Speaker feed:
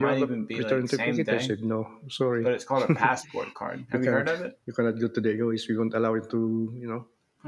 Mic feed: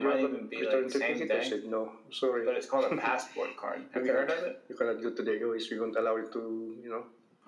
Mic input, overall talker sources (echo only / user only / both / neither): echo only